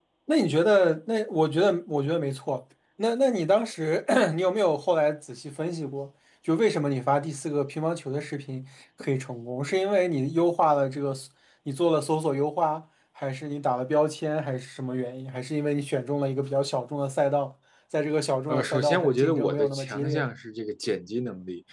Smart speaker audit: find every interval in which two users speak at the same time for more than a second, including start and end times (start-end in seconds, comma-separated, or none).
18.5-20.3